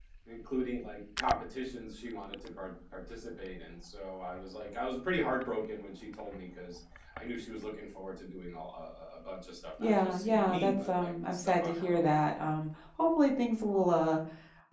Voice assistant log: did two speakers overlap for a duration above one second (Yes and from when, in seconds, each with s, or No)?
Yes, from 9.8 s